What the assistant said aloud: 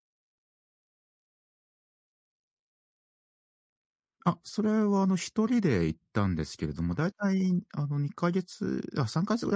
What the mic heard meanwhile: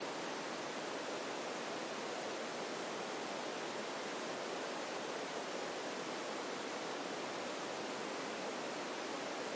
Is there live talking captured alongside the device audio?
No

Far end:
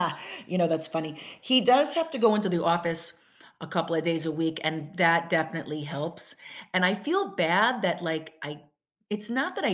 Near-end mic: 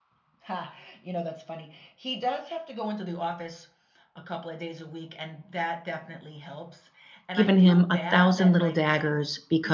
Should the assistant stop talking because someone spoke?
Yes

